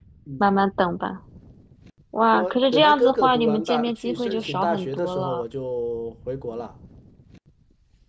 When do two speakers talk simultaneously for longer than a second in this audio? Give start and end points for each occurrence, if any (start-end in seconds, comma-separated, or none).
2.3-5.4